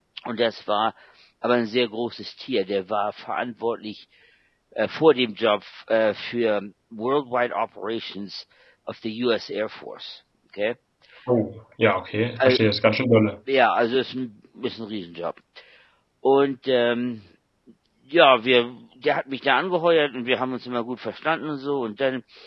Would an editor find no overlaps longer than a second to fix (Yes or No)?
Yes